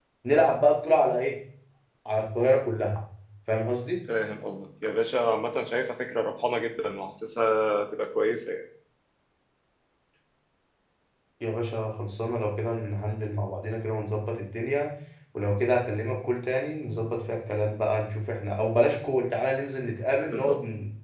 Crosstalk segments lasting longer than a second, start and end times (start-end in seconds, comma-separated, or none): none